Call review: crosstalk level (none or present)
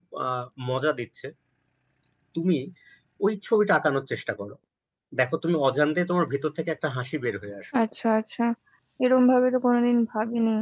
none